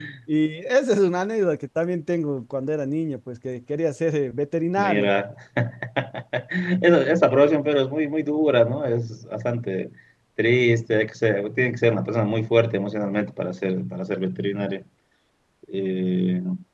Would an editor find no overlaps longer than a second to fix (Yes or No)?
Yes